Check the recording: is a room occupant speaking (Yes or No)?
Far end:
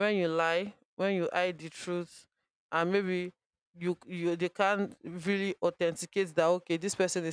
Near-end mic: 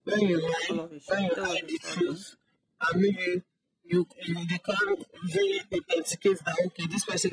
Yes